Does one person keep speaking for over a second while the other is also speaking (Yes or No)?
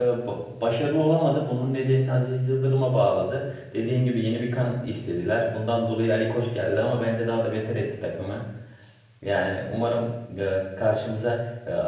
No